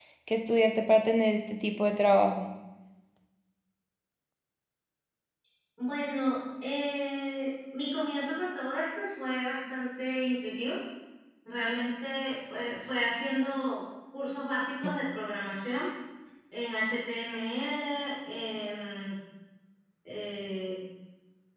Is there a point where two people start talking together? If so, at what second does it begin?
none

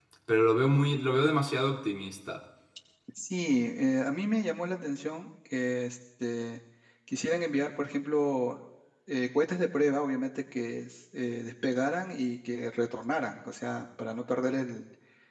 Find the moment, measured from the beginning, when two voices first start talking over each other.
none

